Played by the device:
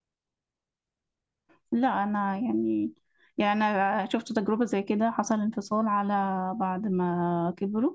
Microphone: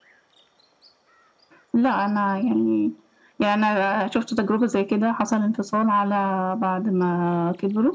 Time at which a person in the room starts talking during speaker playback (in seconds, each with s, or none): none